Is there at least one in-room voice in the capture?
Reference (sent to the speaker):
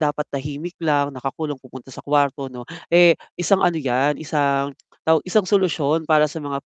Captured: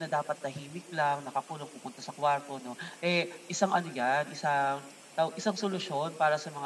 No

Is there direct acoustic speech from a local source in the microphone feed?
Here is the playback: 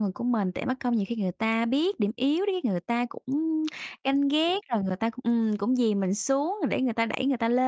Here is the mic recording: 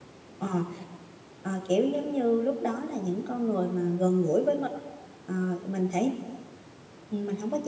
Yes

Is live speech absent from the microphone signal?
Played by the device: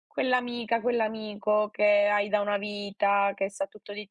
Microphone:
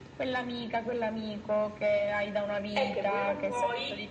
No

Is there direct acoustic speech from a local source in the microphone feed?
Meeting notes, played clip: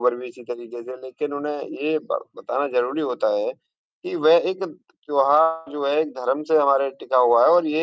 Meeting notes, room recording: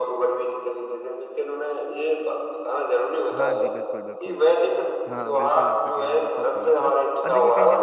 Yes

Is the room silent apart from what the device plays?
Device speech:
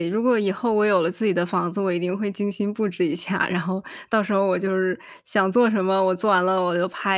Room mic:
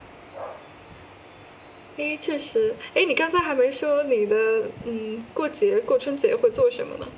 No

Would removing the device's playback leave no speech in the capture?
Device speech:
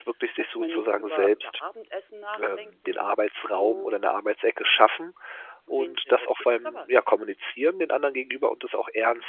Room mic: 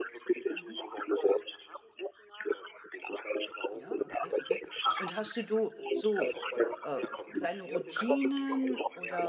No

